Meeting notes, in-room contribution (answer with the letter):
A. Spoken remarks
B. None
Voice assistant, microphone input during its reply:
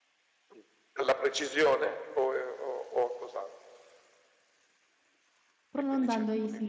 A